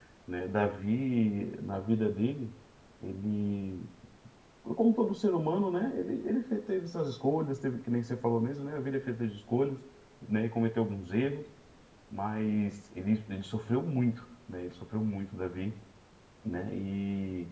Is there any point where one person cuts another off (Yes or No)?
No